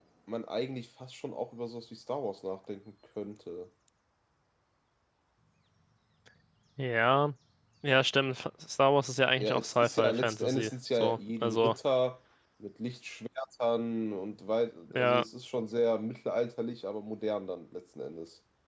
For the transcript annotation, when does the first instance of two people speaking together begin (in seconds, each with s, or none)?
9.4 s